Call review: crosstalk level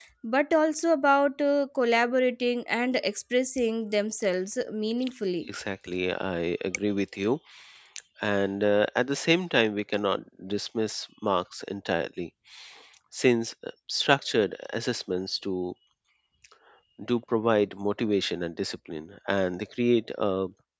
none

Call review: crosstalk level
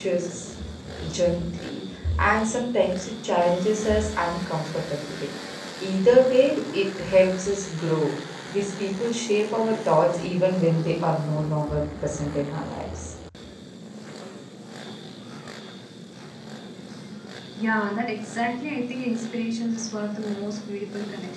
none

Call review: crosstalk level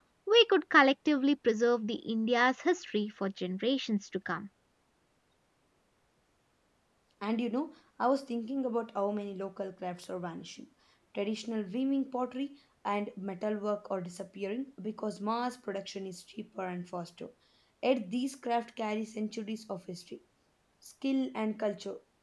none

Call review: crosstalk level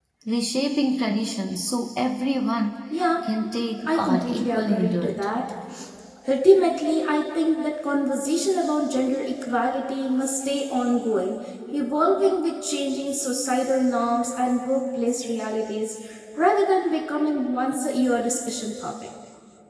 present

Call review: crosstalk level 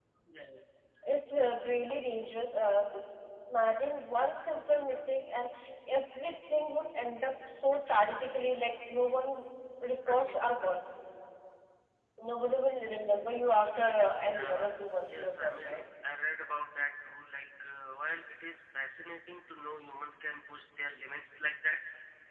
present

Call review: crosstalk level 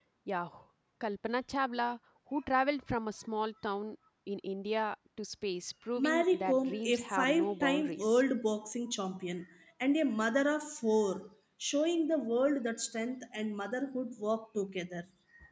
present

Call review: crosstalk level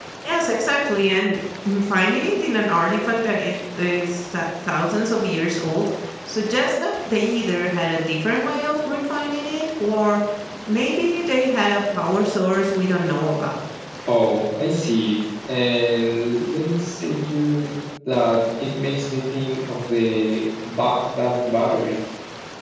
none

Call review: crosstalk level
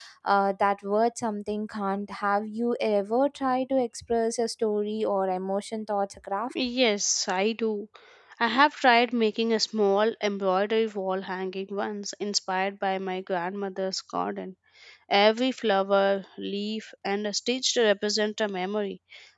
none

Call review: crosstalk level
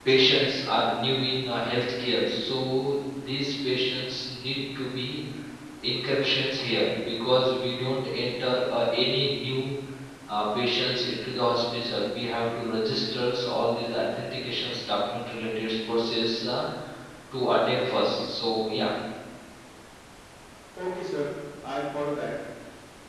none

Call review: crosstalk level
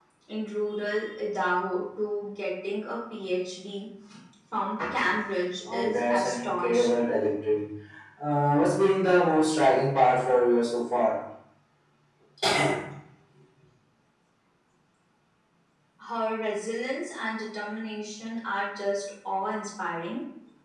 present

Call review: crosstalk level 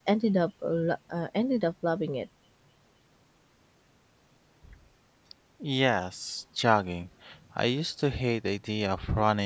none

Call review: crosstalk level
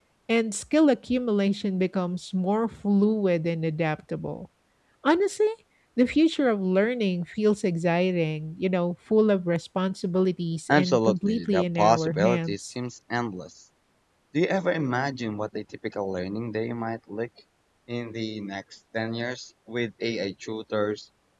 present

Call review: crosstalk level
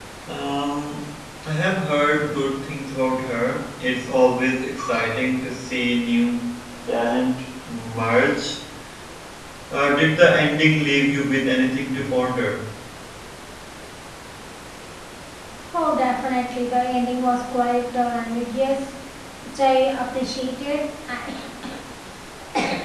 none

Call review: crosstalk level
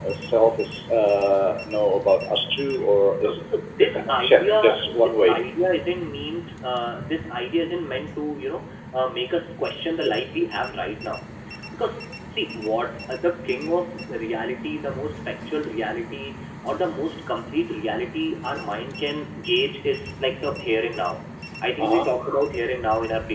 present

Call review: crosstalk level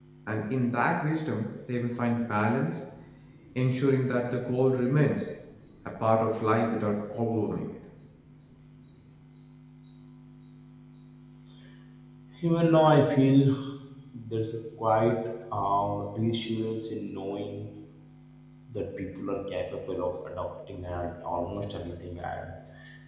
none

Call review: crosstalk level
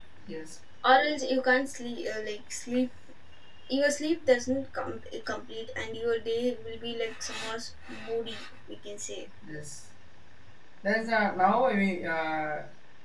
none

